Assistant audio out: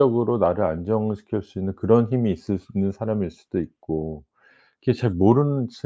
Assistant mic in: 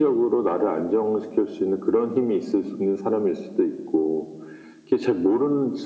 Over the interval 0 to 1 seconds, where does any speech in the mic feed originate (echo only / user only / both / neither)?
echo only